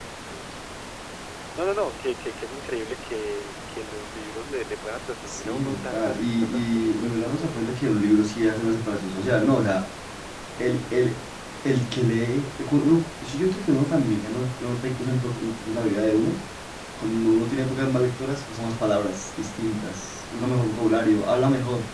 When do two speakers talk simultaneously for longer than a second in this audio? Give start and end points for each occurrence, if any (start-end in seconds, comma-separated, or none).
5.3-7.8